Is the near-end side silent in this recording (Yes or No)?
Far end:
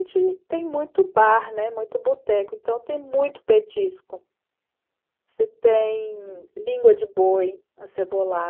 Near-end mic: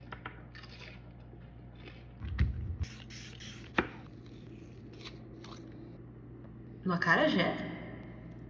No